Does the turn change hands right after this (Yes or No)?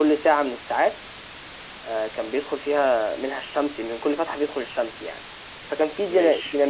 No